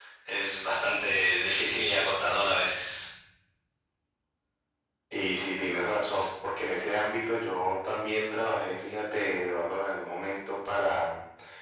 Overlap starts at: none

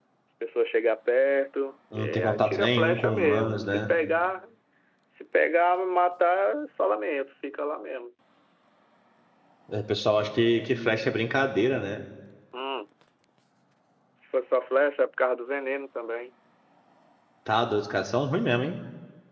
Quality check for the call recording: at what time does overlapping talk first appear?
1.9 s

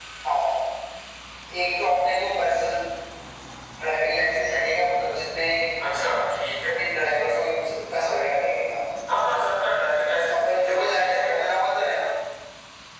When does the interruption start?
10.3 s

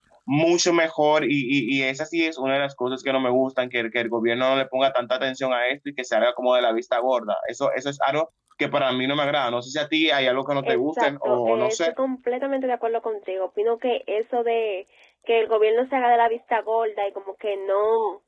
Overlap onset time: 10.6 s

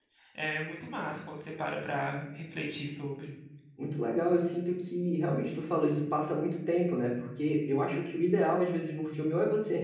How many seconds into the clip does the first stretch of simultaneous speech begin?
none

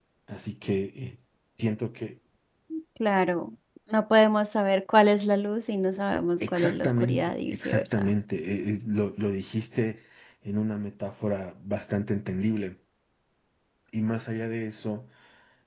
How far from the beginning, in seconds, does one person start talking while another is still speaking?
6.4 s

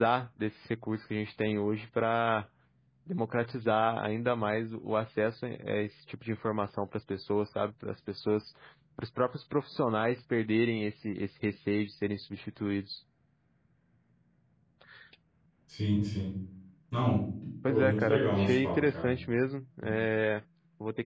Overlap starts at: 17.7 s

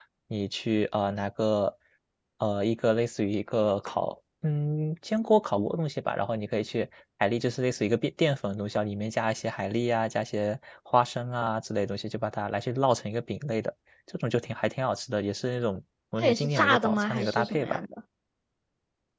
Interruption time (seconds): 16.2 s

